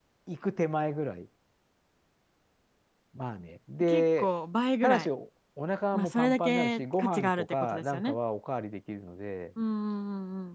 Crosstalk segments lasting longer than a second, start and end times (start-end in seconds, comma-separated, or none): 5.9-8.2